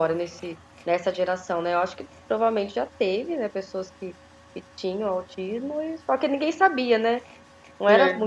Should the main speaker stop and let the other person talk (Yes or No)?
No